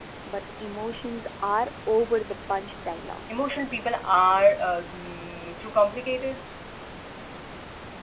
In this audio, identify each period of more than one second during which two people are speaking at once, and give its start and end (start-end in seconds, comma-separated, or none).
none